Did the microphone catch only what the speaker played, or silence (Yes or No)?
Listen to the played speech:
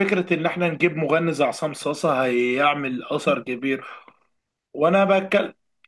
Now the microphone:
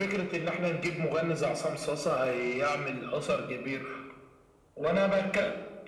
Yes